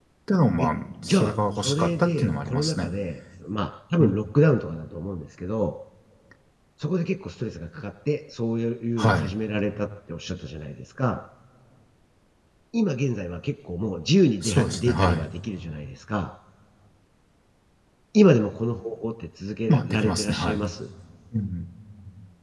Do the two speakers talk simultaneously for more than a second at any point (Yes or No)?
Yes